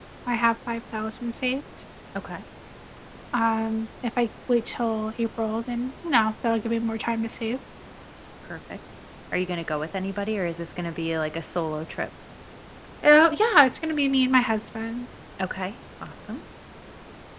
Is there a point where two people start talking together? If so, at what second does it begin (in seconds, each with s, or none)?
none